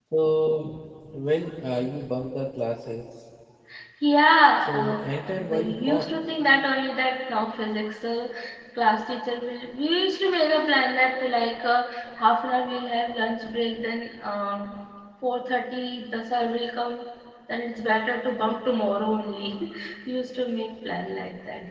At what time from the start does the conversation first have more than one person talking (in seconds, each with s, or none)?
4.7 s